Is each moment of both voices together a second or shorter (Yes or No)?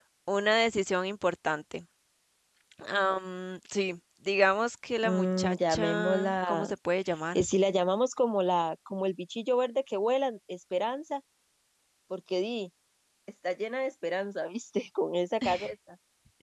No